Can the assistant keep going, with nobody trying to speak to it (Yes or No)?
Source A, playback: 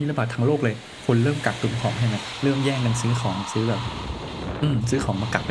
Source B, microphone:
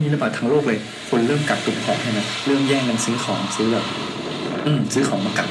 Yes